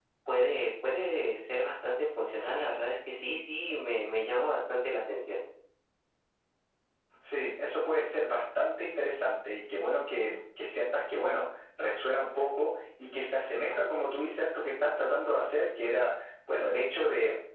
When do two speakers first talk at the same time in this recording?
none

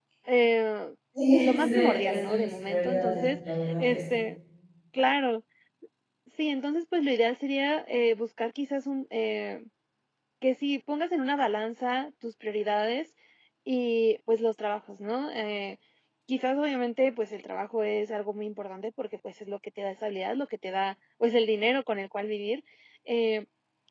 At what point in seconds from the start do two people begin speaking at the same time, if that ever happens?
1.4 s

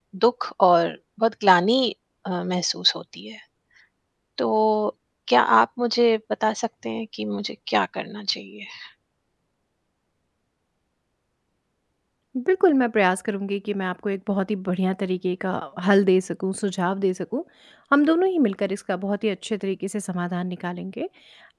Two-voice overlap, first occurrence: none

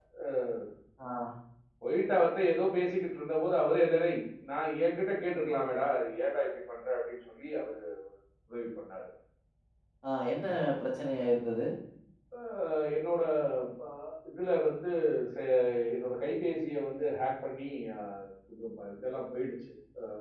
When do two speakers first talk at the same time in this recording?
none

